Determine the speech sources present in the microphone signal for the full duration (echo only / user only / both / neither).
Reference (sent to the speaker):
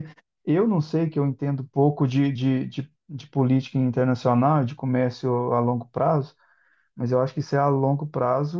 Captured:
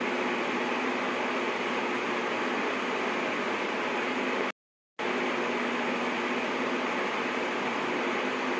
neither